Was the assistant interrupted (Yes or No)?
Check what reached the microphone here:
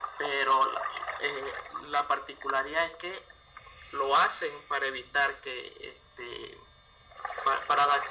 No